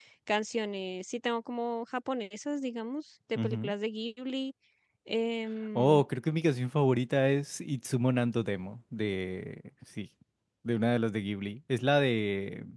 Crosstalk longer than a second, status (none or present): none